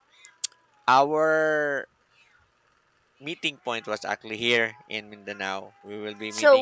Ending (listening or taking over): taking over